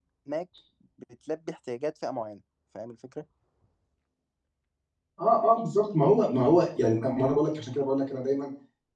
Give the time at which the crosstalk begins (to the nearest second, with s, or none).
none